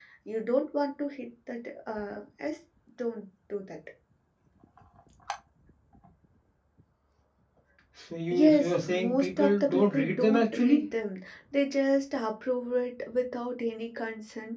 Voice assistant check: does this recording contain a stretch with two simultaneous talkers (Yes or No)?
Yes